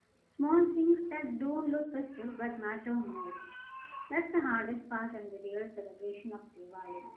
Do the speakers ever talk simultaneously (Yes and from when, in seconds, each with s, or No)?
No